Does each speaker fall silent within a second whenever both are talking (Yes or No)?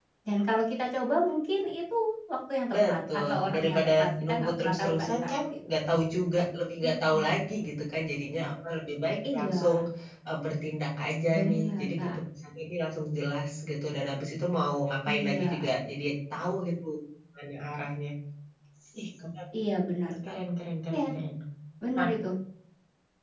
No